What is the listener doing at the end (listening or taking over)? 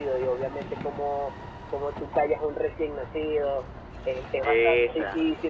listening